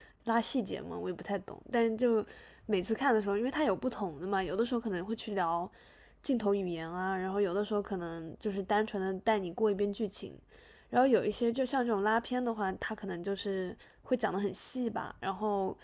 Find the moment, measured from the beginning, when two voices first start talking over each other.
none

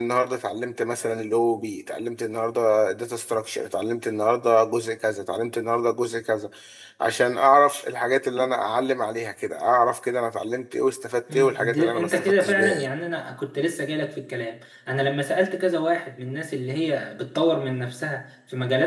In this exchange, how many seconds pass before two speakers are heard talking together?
11.3 s

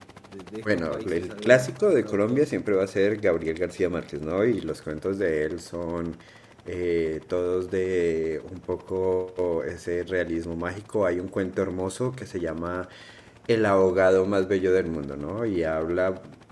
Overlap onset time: 0.7 s

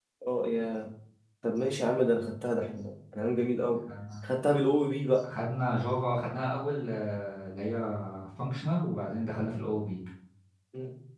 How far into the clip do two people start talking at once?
none

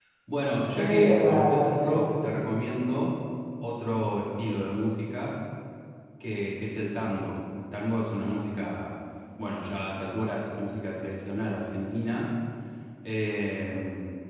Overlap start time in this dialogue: 0.7 s

